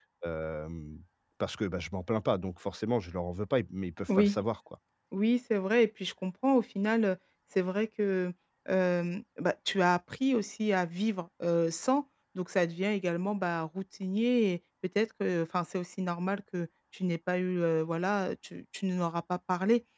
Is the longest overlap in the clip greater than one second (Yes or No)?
No